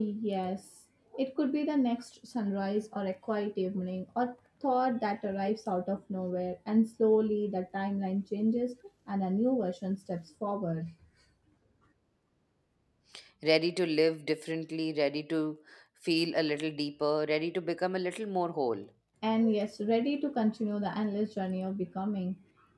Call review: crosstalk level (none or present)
none